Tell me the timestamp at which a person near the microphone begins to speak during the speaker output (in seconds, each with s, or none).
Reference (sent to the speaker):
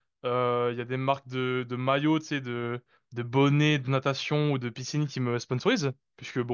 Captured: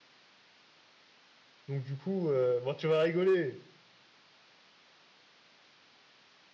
1.7 s